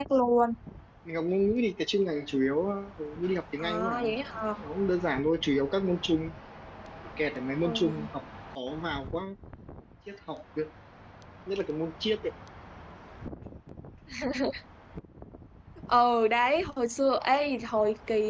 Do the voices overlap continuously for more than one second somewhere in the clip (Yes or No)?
No